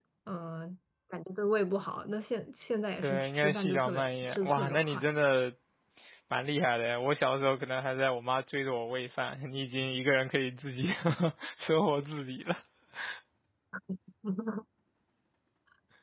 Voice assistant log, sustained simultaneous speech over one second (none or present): present